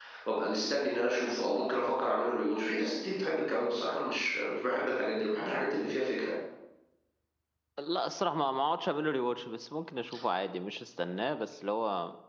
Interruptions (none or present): none